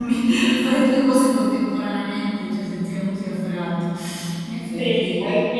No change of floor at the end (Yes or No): No